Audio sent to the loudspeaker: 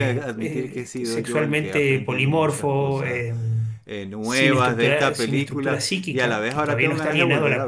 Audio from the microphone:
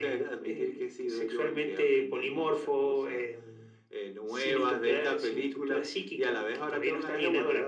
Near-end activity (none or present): none